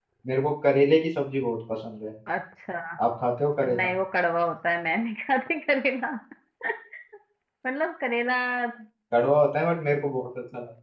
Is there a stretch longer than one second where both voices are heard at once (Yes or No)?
No